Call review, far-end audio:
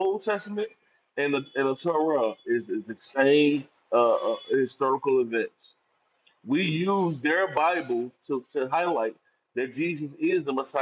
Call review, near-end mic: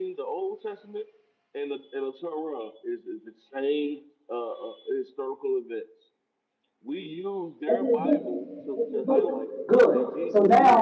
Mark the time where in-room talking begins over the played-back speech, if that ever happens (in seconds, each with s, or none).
7.7 s